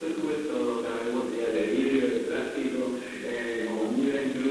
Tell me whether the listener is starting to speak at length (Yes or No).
No